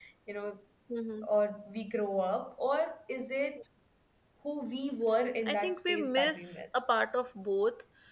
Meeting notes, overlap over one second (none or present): present